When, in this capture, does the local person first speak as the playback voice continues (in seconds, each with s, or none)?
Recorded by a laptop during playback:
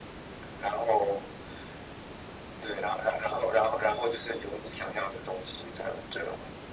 none